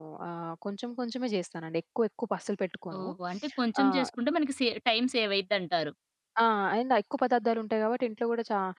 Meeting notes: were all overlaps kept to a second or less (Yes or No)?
Yes